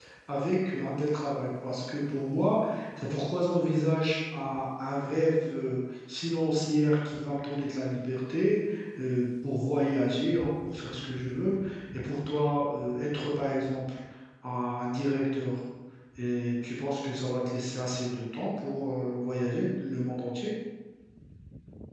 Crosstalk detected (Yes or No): No